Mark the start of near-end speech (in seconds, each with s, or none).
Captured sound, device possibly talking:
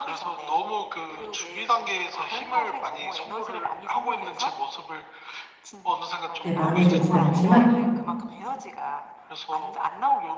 6.4 s